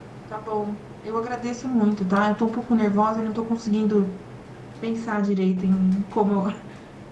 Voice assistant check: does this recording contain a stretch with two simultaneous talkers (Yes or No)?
No